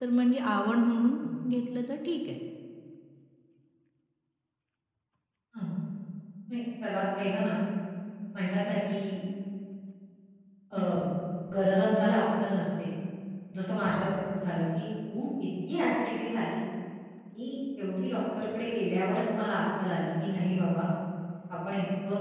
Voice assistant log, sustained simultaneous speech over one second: none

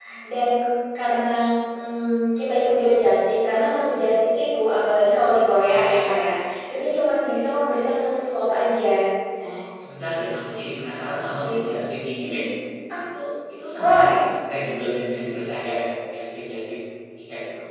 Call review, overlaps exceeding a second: none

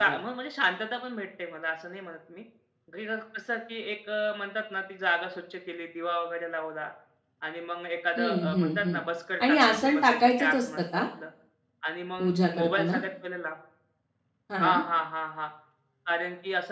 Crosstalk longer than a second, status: present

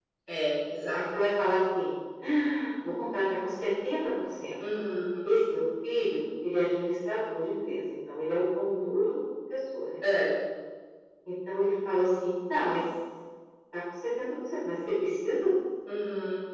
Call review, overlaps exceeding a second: none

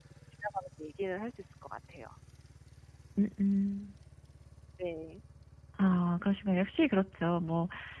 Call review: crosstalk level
none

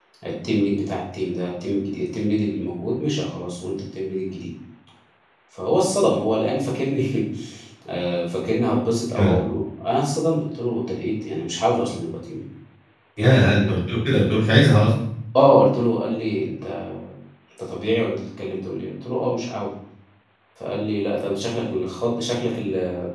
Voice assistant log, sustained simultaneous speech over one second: none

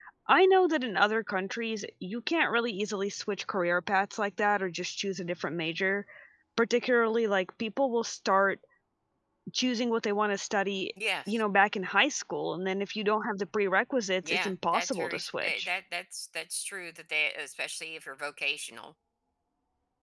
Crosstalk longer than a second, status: present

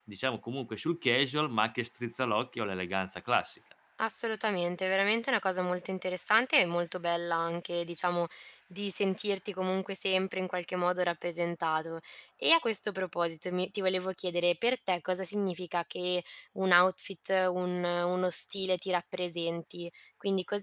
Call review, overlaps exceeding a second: none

